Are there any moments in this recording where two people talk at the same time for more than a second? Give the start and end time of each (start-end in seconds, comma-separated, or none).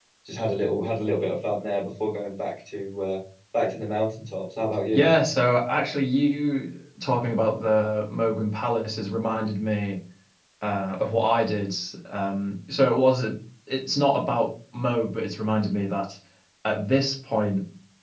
none